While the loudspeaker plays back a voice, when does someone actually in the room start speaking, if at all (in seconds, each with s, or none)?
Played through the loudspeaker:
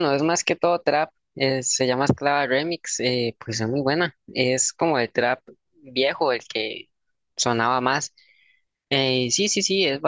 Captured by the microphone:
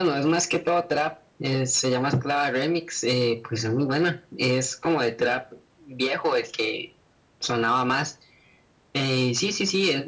none